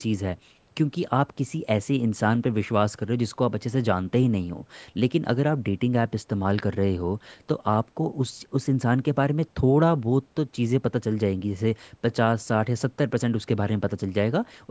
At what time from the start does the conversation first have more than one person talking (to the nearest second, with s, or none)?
none